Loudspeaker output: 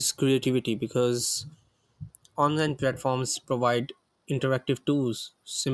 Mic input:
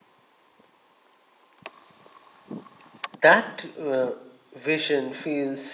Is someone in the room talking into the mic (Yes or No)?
Yes